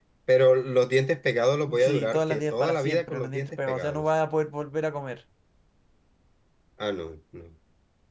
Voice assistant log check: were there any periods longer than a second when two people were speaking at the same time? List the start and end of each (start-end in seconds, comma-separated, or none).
1.8-4.0